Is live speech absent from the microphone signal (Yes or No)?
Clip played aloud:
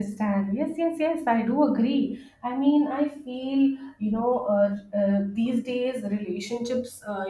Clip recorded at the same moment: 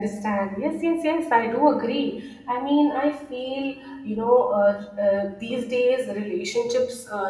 Yes